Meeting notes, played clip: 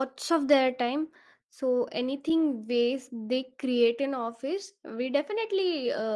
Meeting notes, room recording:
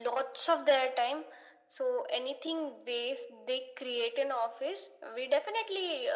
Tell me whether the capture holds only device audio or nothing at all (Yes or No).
Yes